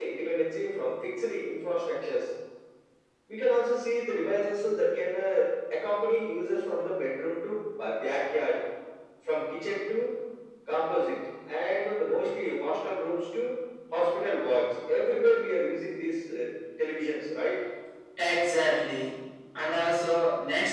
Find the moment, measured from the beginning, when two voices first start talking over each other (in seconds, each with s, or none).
none